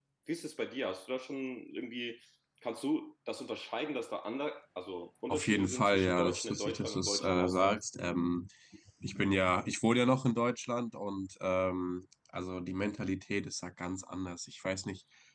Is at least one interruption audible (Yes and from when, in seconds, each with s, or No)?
Yes, from 5.3 s